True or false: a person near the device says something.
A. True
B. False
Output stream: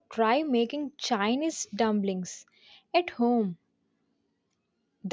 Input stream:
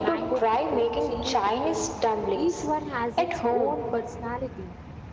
A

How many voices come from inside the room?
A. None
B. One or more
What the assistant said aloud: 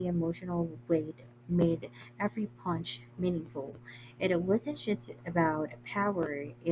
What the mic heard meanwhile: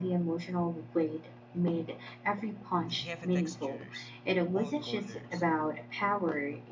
B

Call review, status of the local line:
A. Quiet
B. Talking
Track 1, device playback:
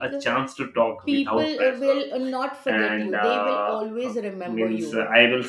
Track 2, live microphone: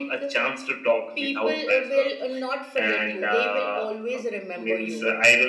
A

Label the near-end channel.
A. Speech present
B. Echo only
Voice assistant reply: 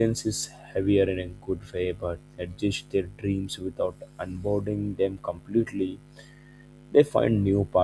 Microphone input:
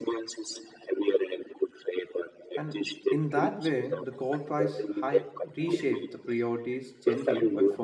A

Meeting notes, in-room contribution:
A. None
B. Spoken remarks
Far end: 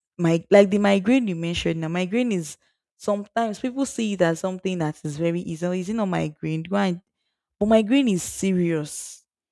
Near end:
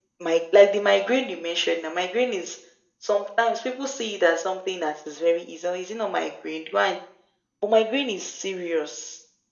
A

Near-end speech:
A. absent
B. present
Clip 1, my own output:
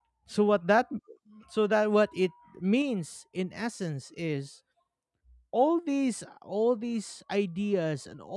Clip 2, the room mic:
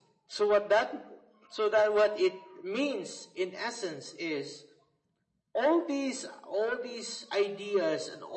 A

